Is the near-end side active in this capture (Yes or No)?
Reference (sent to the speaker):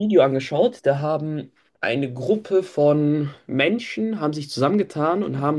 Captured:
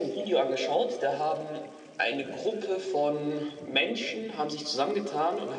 No